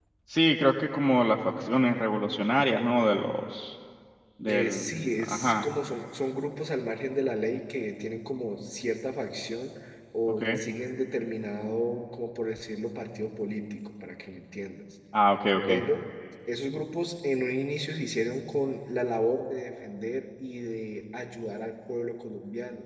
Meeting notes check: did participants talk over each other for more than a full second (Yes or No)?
Yes